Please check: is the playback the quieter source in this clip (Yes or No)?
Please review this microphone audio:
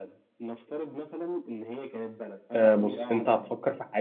Yes